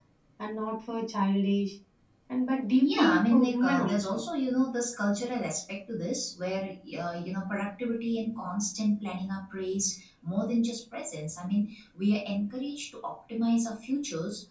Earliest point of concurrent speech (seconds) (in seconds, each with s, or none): 2.9 s